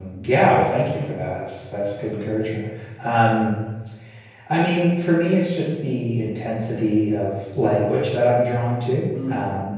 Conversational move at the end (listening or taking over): listening